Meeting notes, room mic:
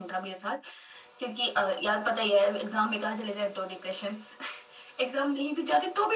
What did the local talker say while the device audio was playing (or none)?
none